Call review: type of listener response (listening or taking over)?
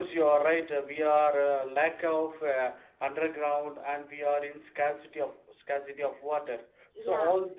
listening